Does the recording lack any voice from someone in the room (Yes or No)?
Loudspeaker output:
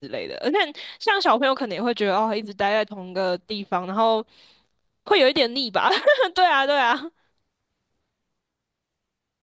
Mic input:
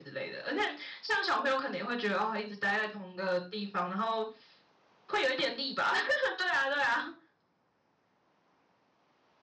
Yes